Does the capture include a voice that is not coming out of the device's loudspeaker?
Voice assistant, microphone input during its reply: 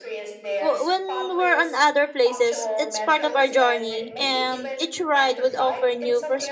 Yes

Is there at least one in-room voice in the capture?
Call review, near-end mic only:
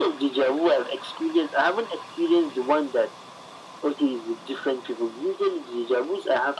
No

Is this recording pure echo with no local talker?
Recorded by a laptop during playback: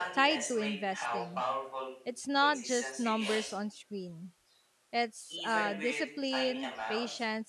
No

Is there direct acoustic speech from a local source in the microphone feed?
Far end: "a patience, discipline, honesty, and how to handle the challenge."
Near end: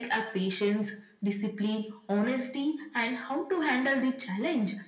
No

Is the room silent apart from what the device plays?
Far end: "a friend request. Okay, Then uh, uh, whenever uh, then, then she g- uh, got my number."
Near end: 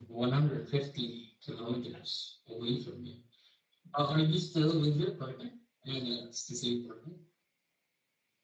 No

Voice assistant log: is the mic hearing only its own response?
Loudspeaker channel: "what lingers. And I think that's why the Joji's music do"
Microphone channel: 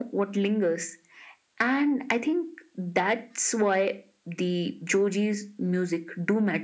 Yes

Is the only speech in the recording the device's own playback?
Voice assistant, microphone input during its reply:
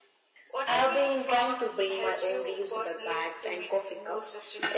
Yes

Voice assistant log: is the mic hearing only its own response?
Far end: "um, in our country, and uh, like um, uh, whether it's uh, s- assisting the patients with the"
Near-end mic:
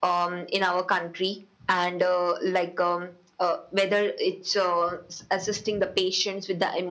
Yes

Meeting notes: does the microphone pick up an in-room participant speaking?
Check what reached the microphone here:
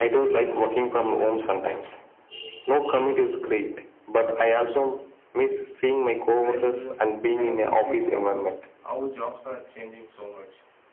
Yes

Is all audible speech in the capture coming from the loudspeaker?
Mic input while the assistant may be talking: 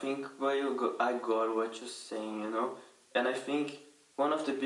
Yes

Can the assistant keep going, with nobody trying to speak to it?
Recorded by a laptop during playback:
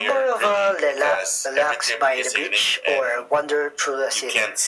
Yes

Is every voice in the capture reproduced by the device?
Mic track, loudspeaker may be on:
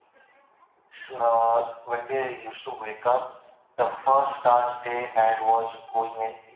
Yes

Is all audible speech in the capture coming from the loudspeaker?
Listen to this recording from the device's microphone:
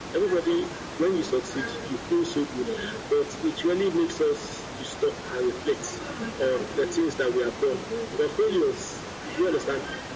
Yes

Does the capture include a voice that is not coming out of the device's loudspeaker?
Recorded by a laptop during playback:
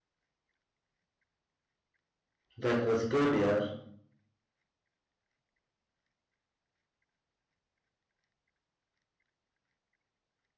Yes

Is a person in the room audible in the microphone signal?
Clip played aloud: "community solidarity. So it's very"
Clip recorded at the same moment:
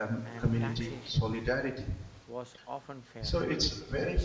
Yes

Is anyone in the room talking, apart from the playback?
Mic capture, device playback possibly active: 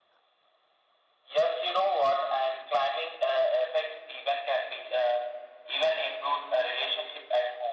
No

